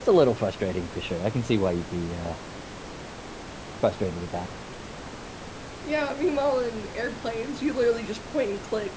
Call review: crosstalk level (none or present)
none